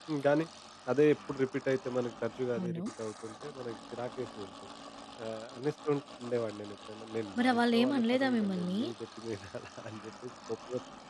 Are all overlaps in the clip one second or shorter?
No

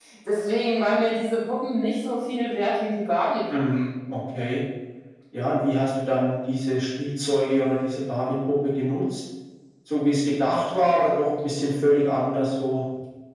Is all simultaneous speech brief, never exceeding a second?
Yes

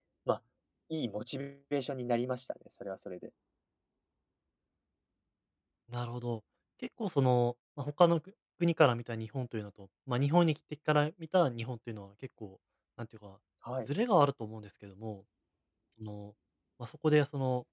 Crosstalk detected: No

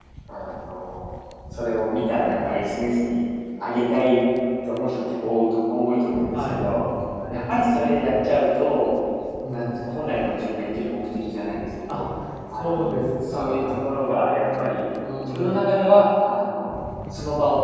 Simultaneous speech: Yes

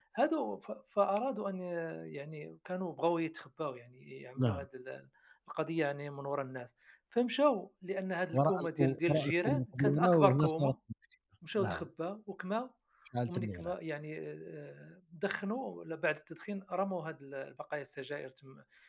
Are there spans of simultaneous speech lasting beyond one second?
Yes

